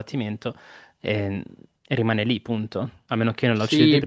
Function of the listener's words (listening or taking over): taking over